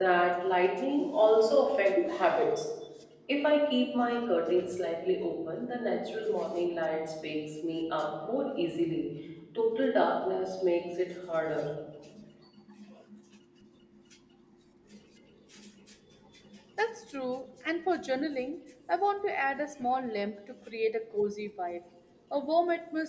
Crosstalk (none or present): none